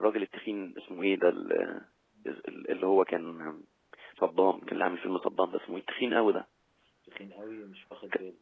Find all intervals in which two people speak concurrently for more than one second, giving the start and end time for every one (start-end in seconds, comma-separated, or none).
none